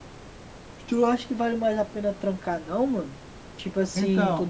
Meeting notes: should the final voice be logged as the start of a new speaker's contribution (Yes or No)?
No